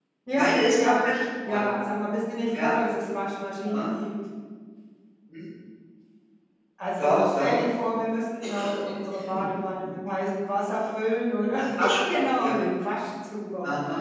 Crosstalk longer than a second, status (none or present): present